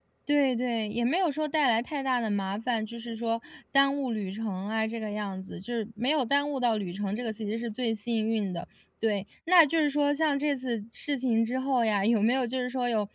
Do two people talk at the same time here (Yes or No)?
No